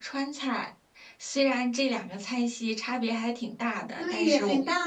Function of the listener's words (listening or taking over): taking over